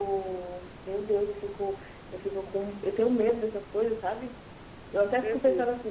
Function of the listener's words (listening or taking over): listening